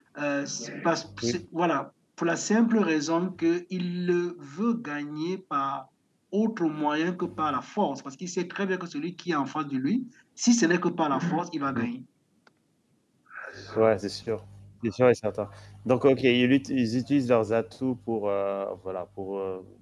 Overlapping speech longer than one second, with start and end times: none

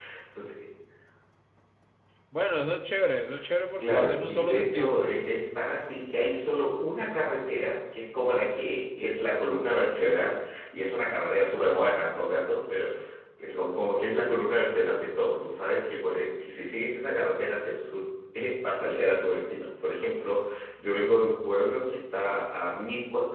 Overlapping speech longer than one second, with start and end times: 3.8-5.0

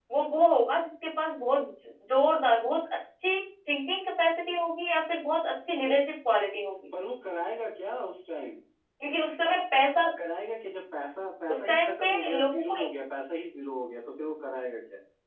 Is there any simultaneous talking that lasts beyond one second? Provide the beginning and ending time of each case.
11.5-12.8

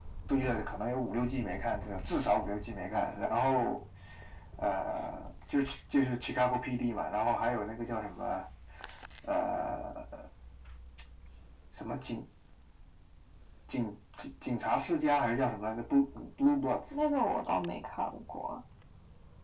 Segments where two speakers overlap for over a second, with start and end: none

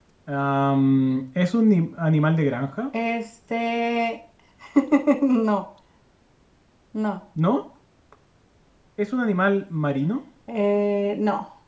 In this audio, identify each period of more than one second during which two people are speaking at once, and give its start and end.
none

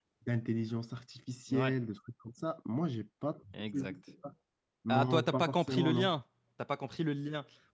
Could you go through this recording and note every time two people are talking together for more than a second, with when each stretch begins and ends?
4.9-6.2

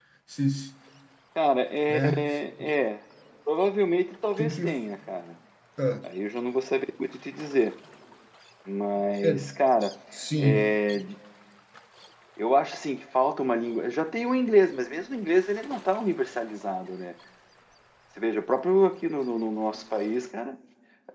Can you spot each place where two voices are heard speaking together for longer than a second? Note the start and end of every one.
none

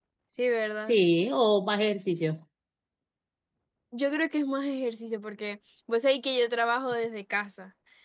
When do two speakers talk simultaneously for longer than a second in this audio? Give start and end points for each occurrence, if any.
none

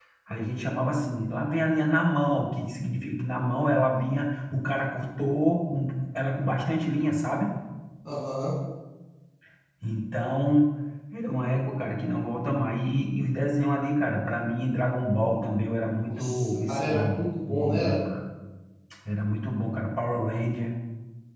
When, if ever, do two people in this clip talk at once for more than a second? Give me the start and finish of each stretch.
16.1-18.0

